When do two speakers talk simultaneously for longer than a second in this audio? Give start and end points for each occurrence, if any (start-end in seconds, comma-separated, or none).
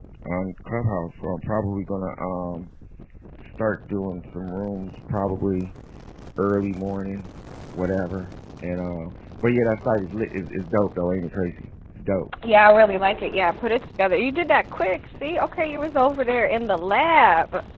none